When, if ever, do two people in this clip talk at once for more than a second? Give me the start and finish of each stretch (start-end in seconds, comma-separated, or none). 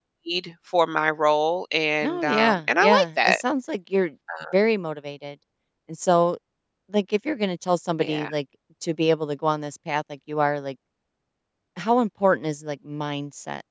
2.0-3.4